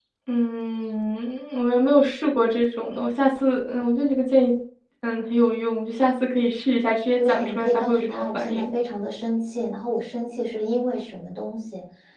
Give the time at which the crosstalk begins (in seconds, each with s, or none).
7.2 s